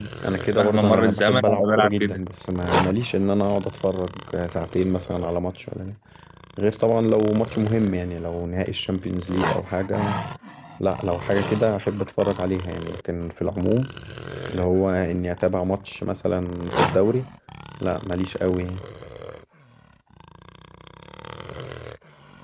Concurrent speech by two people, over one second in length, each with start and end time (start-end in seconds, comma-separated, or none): 0.5-2.2